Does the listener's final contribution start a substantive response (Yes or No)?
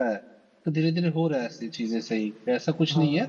No